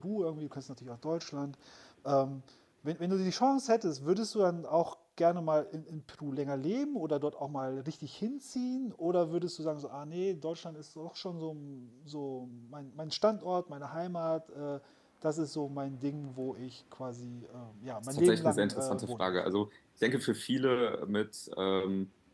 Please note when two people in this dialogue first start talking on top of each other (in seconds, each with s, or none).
18.0 s